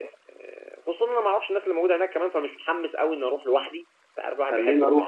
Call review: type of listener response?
taking over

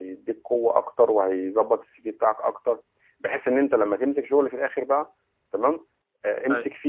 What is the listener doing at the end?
listening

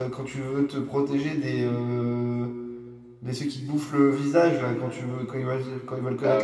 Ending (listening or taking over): taking over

